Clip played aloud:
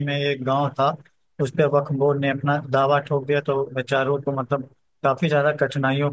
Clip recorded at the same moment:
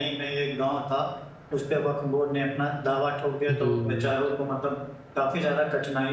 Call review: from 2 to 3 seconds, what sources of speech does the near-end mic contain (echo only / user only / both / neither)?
echo only